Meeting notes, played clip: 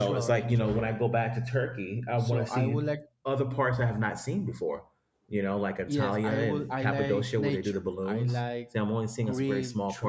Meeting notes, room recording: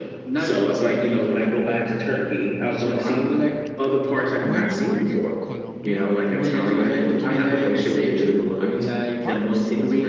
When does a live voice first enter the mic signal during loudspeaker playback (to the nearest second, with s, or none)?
4 s